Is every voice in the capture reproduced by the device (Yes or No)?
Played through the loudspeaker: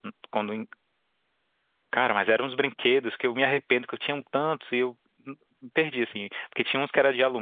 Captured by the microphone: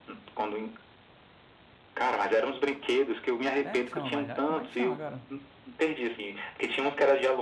No